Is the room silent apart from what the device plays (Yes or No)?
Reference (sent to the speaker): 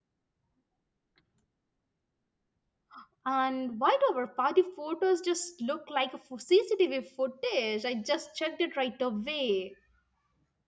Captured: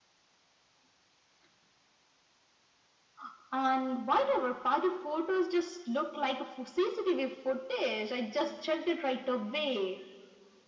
Yes